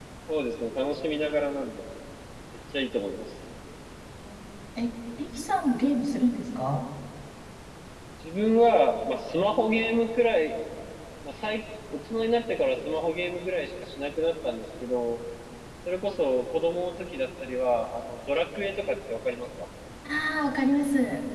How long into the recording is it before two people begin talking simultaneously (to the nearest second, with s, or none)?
none